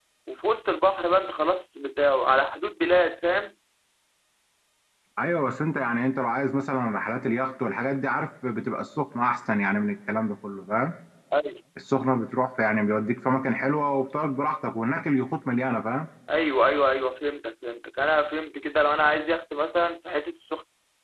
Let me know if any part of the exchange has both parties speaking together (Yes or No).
No